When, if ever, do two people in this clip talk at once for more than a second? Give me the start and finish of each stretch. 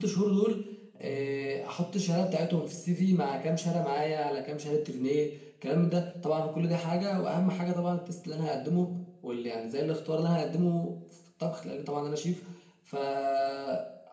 none

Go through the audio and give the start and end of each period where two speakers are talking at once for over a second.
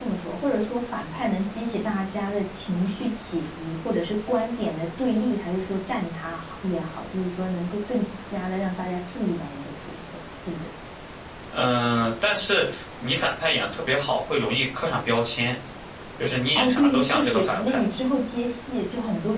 16.6-17.9

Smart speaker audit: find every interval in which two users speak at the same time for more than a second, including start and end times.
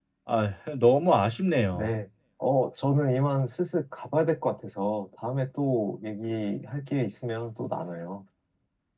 none

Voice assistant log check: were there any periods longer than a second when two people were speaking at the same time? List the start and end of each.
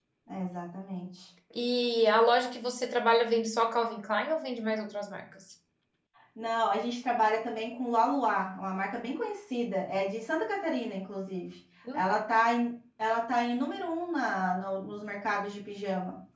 none

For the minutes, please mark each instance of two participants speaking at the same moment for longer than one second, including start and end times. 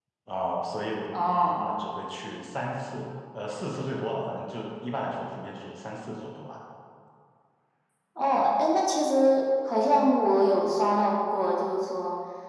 none

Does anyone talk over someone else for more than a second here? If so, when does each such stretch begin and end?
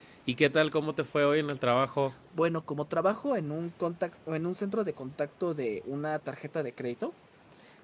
none

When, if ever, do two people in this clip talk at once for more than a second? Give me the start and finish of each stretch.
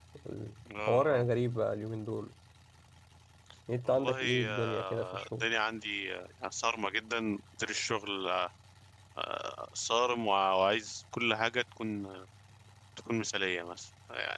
3.9-5.5

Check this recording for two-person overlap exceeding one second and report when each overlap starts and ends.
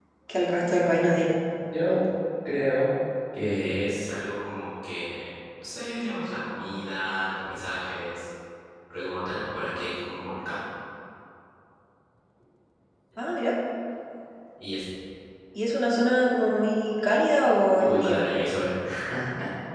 none

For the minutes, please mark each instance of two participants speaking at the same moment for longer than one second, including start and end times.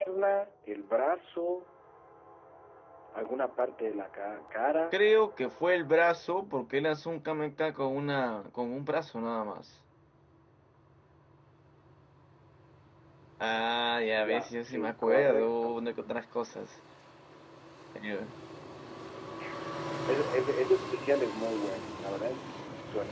13.6-15.8

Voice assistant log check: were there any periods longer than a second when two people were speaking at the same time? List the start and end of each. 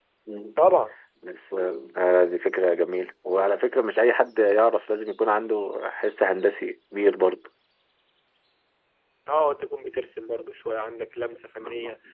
none

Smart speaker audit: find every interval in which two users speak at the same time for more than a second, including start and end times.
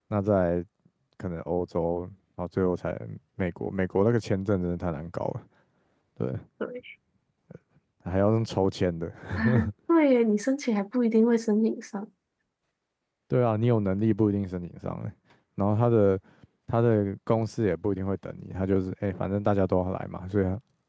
none

